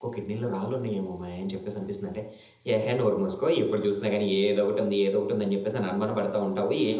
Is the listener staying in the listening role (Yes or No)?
No